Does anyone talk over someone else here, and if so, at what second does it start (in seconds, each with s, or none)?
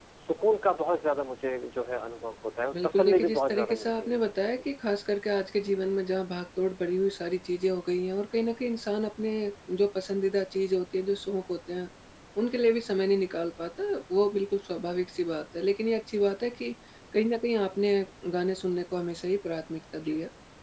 2.7 s